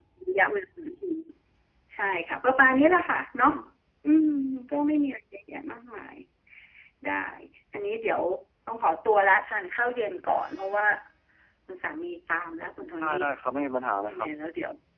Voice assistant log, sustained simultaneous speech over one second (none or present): none